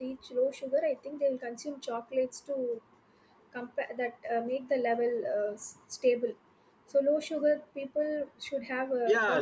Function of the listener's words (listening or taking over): taking over